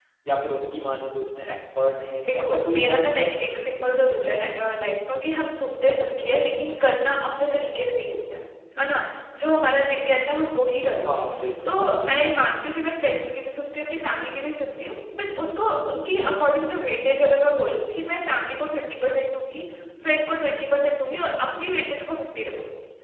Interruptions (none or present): present